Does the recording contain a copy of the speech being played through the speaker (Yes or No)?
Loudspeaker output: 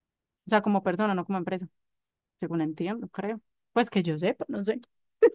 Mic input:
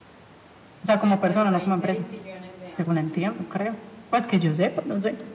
Yes